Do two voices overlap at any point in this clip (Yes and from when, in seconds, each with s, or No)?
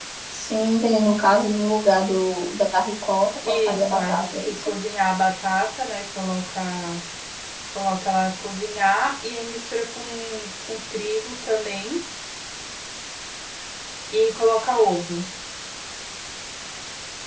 Yes, from 3.4 s